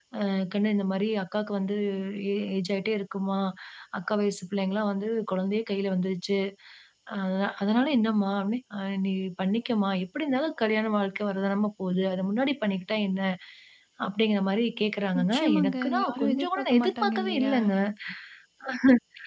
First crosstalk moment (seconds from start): 15.1 s

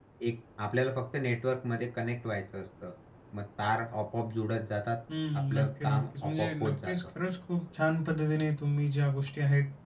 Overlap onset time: 5.3 s

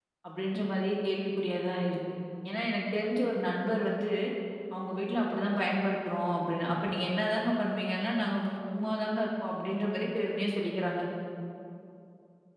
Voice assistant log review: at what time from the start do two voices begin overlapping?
none

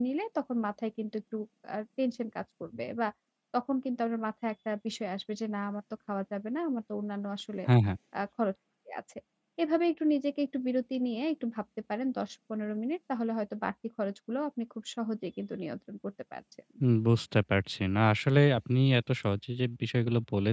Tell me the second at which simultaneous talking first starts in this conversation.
none

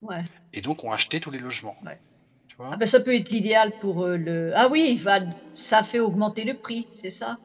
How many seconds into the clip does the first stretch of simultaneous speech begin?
none

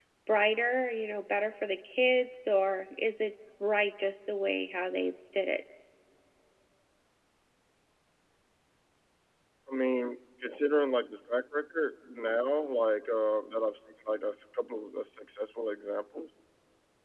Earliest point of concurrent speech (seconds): none

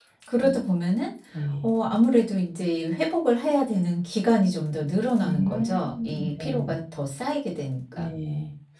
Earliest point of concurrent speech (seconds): 5.2 s

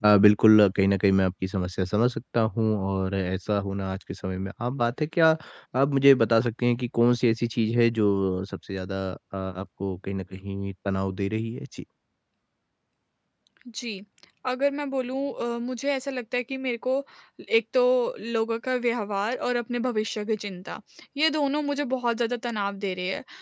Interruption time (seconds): none

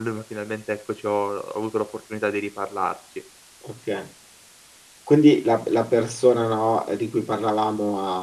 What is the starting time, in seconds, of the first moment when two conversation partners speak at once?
none

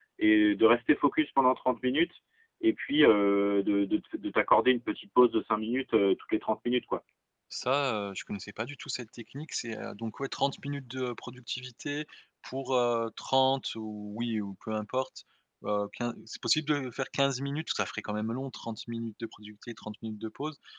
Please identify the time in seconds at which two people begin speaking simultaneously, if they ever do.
none

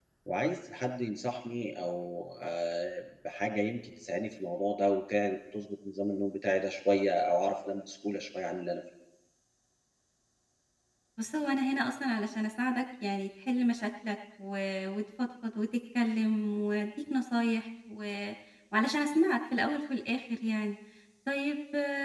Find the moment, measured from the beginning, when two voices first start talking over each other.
none

